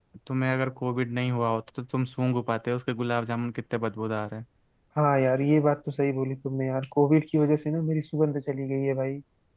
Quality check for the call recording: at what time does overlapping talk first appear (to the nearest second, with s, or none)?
none